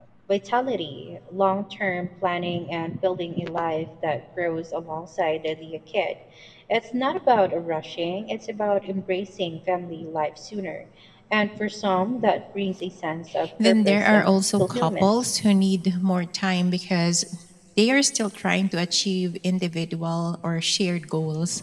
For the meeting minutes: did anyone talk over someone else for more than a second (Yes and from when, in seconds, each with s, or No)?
Yes, from 13.6 s